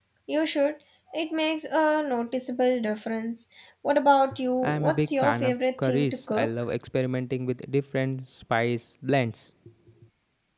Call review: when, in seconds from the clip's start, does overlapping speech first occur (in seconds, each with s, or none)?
4.6 s